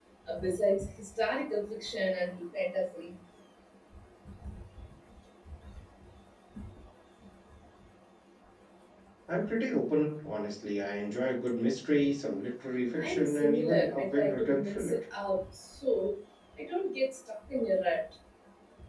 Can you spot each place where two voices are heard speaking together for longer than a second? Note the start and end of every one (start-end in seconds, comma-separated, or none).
13.0-15.0